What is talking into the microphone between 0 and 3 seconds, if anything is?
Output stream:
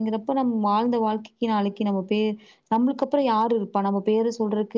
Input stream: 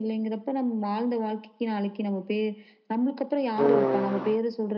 echo only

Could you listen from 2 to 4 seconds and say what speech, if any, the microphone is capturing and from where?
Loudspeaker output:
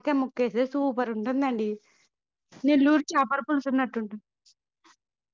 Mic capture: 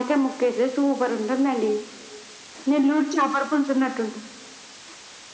echo only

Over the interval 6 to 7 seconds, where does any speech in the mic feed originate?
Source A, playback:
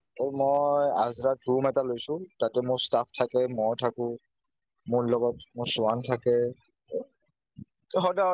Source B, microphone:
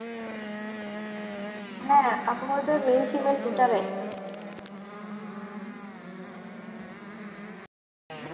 neither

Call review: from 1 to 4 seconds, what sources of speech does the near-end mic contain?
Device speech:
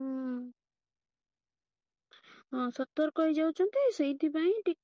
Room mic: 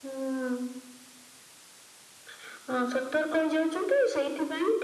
echo only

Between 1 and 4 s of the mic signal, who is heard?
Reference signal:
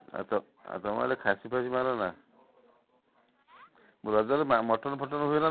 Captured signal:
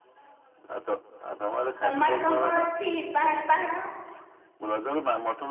both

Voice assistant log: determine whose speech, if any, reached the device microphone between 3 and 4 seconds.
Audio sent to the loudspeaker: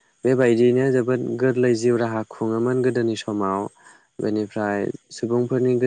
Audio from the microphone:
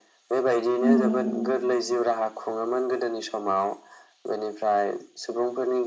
echo only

